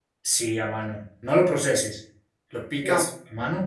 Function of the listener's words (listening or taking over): listening